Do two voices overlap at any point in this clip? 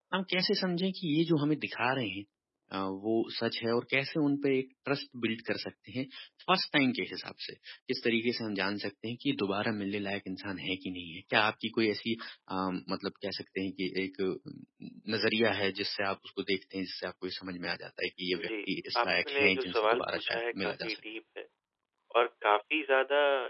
Yes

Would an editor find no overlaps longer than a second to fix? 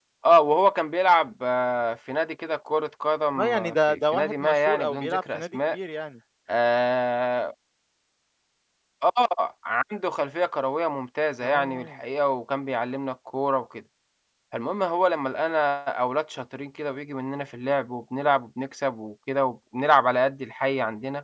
No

